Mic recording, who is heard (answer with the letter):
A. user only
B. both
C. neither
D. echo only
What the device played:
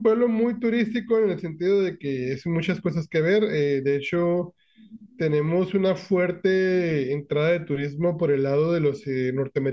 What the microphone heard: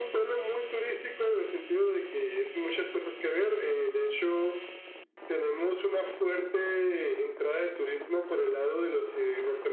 D